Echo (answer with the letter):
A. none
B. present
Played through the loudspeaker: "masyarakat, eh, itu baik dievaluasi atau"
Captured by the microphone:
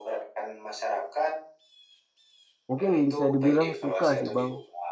B